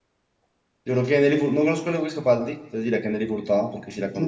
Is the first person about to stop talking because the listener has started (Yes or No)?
Yes